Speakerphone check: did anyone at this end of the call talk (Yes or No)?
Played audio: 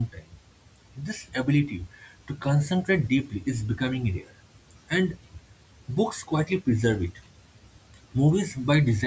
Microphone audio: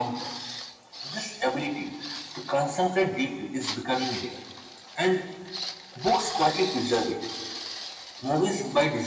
No